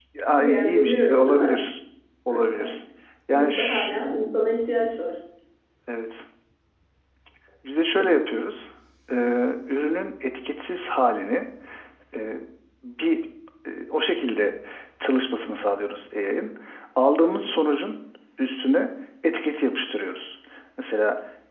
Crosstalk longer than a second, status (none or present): present